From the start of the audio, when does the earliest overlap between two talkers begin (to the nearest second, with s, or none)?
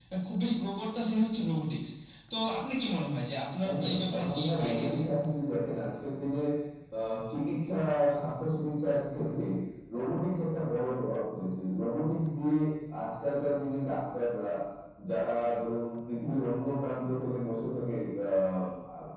4 s